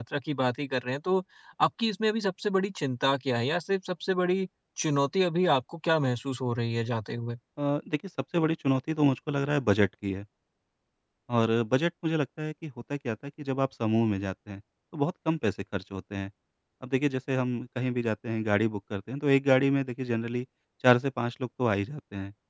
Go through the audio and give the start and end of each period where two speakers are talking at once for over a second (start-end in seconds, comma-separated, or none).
none